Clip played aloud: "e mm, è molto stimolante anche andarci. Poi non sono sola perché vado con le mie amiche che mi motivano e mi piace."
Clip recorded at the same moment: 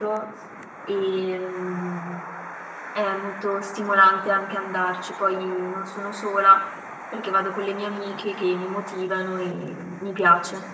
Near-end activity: none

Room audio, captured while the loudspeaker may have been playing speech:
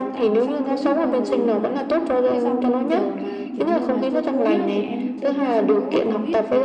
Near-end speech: present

